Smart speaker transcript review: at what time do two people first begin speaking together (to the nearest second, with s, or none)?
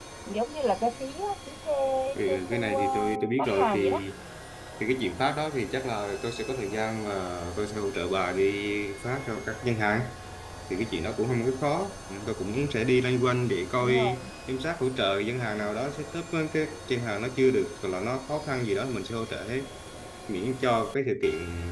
2 s